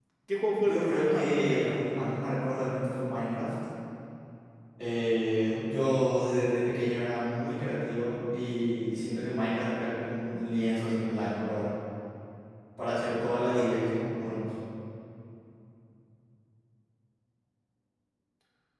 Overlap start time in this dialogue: 0.6 s

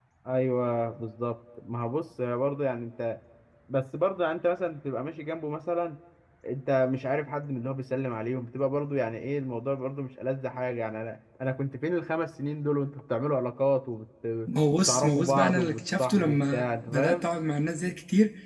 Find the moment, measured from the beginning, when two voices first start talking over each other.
14.9 s

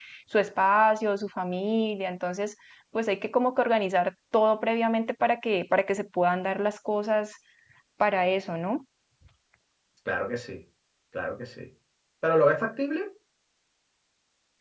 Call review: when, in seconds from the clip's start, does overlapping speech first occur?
none

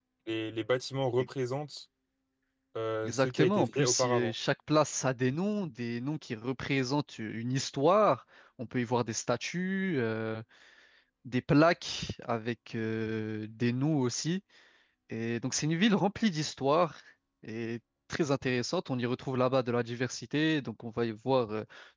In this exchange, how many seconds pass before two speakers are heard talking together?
3.0 s

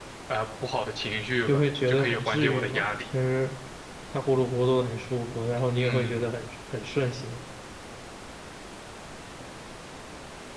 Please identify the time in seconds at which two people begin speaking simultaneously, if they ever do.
1.5 s

